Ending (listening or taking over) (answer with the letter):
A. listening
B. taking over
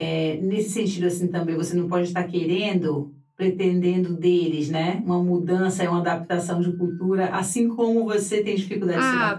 B